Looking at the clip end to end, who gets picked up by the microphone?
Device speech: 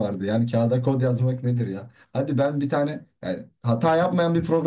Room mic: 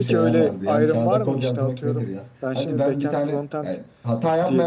both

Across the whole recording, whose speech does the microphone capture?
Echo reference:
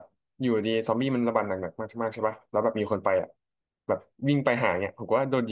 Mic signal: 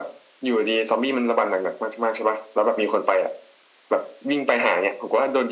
echo only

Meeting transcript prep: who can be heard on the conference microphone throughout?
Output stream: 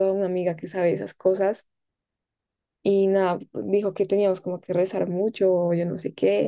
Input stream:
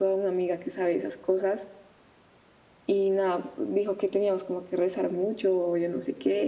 echo only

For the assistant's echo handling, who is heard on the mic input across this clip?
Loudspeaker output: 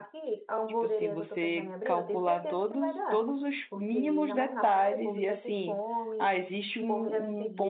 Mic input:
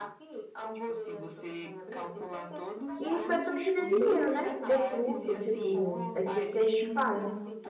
both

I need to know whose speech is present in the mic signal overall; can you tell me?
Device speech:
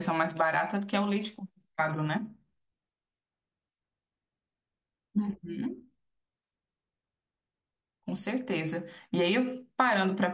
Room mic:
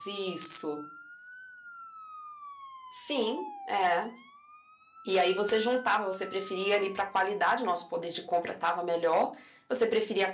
user only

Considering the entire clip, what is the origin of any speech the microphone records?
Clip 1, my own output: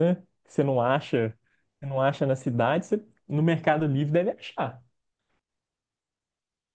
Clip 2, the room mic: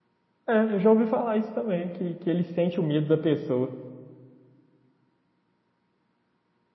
user only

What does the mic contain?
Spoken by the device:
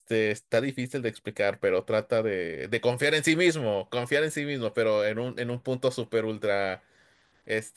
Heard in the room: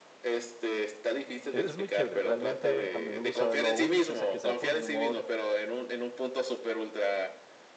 both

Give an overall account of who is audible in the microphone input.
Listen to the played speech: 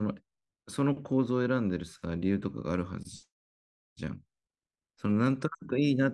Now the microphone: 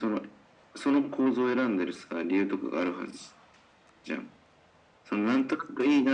echo only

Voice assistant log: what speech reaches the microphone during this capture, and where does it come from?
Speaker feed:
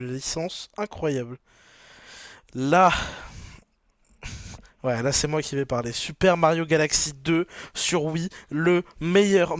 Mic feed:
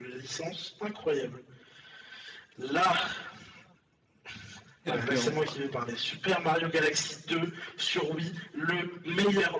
both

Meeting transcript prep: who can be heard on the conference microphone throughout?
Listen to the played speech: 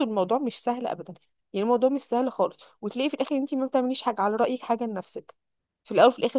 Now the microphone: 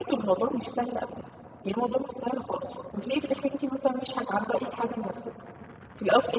echo only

